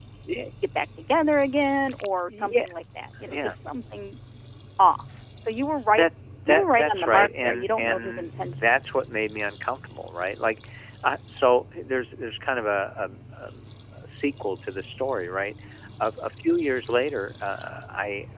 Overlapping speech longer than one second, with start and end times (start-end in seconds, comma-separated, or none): 6.5-8.8